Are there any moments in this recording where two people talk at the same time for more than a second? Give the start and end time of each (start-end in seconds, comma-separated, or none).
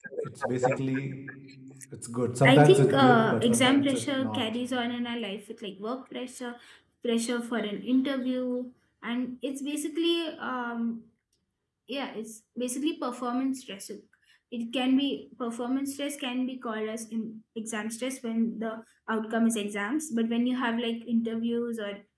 2.4-4.4